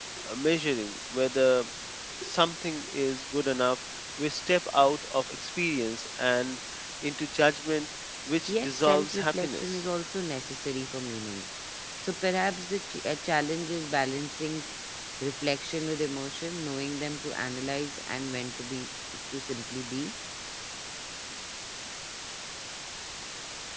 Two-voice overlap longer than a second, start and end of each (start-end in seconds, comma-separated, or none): 8.5-9.8